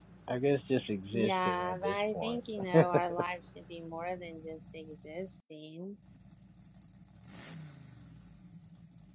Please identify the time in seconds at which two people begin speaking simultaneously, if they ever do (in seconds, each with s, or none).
1.1 s